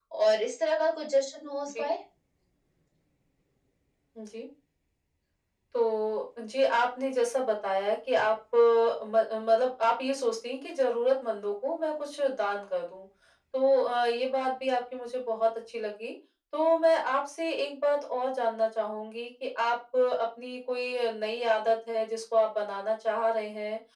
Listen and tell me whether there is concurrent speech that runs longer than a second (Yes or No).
No